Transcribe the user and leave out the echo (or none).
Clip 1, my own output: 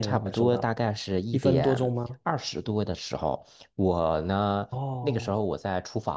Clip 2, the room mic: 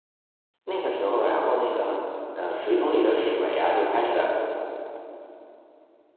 那个时候，然后那个呃，水桶里的水啊，就开始